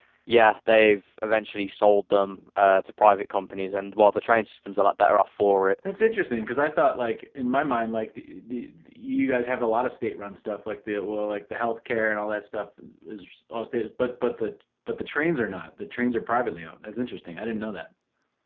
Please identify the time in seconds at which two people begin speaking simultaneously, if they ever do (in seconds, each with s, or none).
none